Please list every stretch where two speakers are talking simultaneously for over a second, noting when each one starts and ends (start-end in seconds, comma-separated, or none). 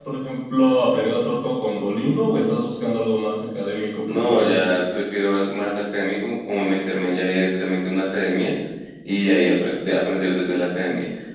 none